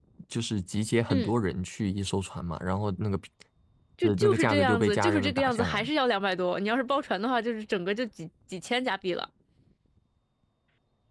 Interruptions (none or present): present